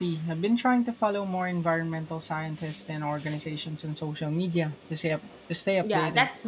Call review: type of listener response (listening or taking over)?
taking over